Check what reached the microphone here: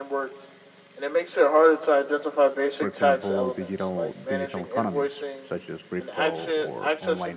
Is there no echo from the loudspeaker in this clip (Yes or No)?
No